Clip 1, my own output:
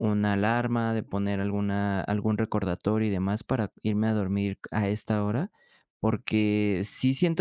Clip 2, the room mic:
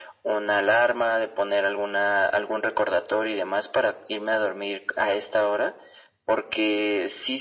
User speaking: No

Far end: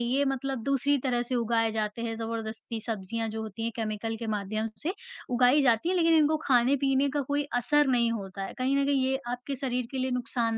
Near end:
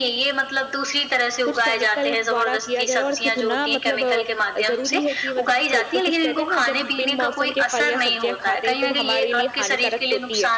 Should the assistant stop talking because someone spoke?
Yes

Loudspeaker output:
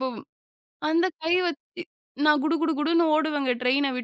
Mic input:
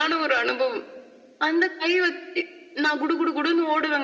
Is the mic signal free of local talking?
Yes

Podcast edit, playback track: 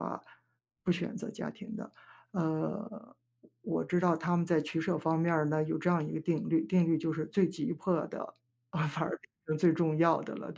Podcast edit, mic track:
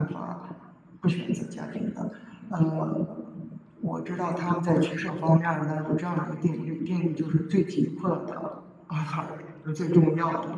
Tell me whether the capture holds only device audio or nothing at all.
Yes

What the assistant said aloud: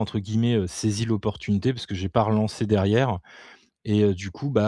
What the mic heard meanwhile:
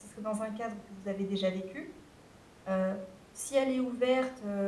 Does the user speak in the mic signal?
Yes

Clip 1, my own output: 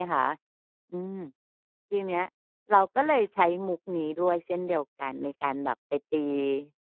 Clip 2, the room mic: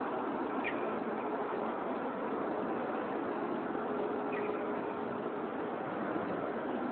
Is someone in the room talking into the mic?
No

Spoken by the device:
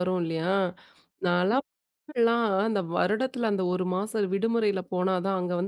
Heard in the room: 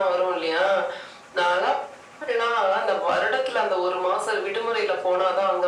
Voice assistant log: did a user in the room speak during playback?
No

